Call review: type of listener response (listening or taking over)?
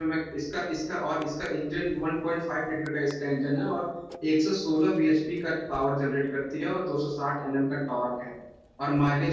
listening